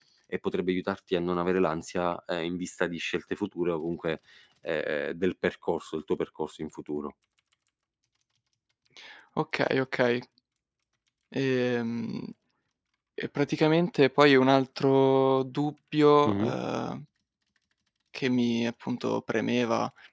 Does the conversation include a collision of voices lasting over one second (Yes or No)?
No